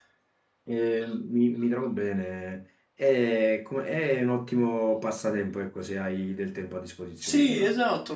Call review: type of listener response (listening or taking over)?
taking over